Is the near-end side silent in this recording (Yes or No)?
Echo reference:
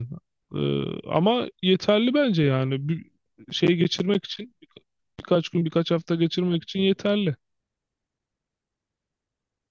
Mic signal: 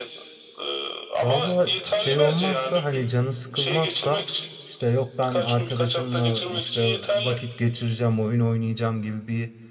No